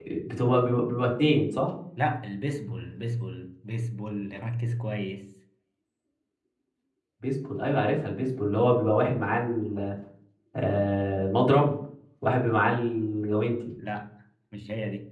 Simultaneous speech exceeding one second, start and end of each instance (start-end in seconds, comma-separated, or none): none